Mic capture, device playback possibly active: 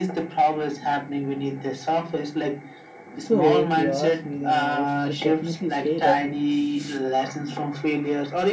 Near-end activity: present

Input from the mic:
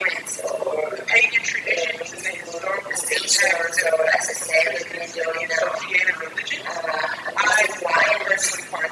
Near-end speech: none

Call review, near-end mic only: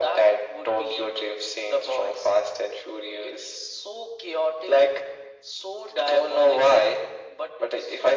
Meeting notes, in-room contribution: none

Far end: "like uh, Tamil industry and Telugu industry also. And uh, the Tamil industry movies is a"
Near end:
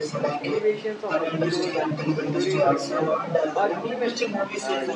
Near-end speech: present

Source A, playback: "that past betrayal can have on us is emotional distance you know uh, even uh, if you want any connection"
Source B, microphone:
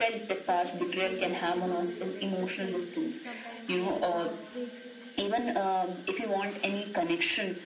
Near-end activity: present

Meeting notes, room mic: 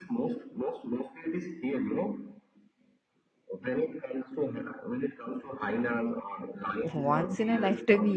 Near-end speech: present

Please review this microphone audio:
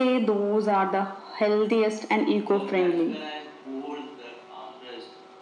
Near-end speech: present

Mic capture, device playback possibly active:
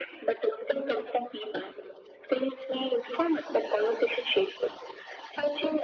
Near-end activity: none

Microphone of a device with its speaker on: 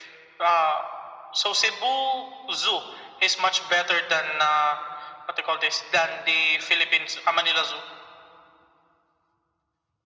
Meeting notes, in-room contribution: none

